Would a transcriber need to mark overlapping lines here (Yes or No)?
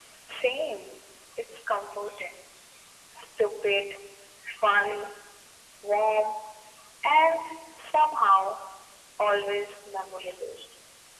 No